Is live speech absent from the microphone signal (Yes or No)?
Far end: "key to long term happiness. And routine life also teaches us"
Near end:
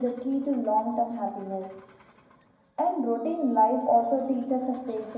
Yes